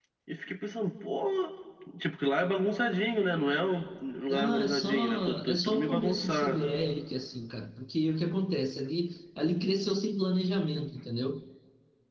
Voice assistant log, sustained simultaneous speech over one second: present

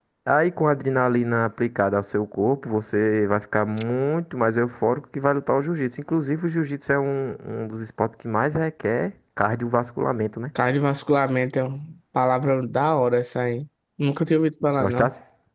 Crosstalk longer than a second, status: none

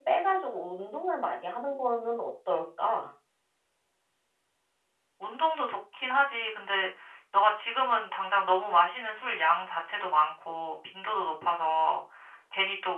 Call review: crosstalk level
none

